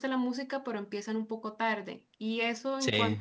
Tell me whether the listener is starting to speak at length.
No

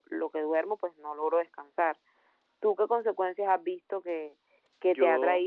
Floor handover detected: No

